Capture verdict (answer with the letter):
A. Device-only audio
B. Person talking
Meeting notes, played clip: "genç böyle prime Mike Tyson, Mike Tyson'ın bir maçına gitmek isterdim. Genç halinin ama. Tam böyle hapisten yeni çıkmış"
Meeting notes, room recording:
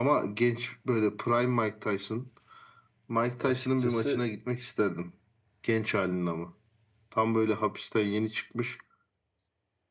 B